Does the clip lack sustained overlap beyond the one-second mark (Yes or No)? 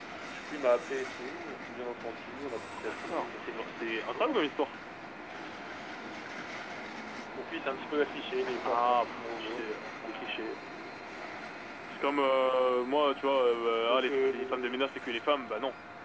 No